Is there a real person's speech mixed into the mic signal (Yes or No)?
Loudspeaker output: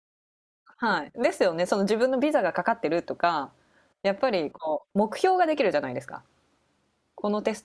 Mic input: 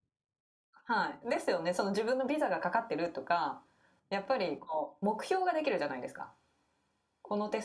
No